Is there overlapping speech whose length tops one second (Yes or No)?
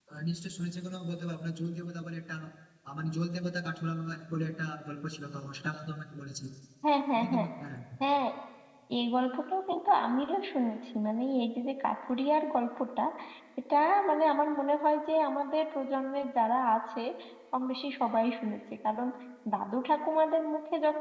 No